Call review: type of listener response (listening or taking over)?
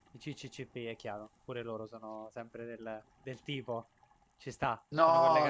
taking over